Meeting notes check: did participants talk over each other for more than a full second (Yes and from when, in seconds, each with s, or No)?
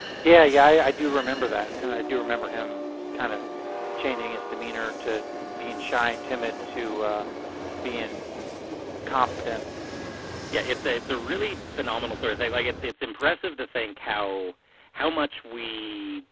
No